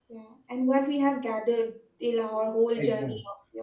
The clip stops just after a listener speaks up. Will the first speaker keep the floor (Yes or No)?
No